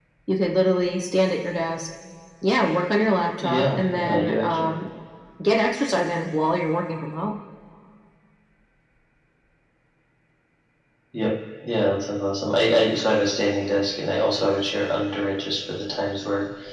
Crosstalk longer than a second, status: present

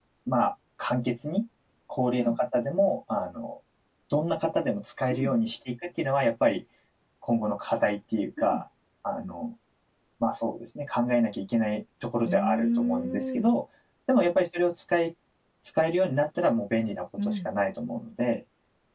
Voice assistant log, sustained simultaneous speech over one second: present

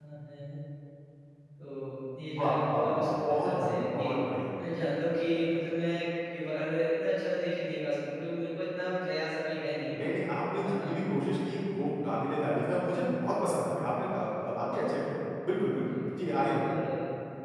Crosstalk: present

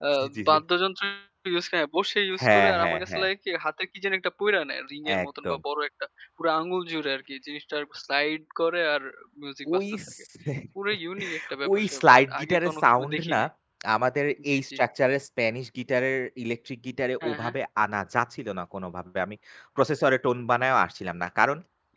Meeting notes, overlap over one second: present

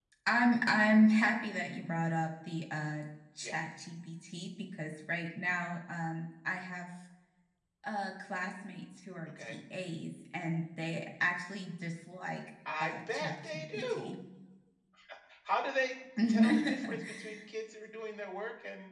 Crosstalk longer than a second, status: present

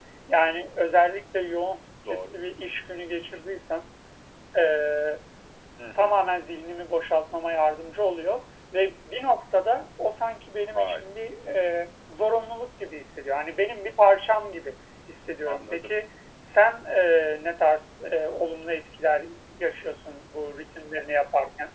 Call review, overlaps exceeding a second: none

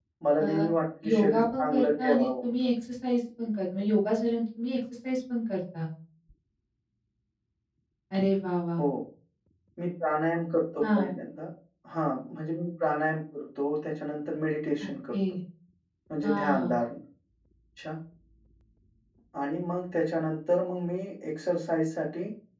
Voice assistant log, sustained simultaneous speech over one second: present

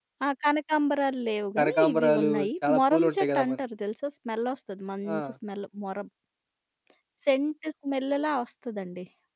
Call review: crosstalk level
present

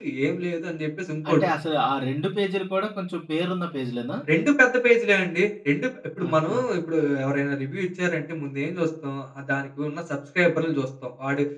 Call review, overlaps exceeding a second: none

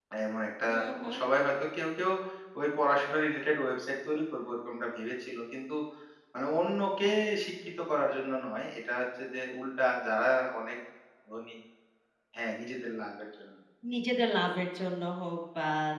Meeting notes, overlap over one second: none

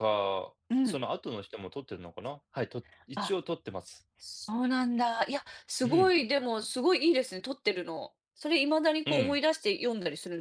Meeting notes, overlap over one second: none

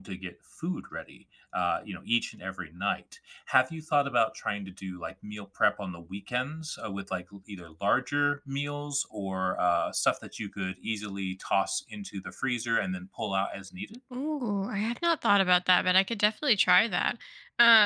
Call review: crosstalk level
none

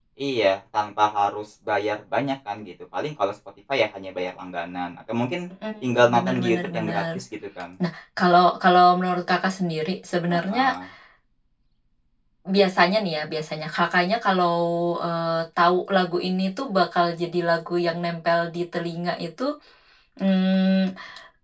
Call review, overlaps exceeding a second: present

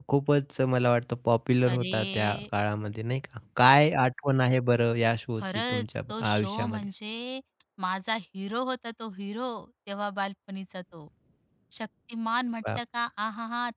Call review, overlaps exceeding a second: present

